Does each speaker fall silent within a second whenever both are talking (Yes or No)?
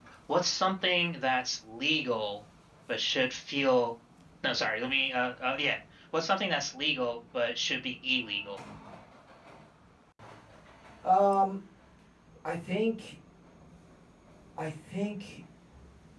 Yes